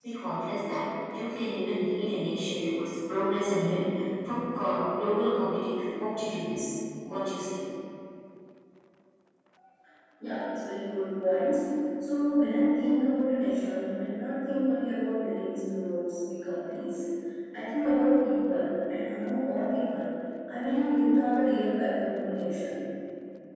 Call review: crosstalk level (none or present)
none